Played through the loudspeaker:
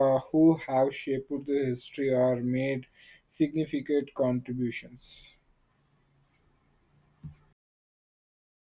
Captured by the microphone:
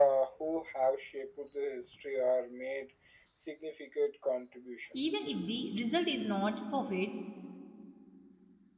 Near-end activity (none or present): present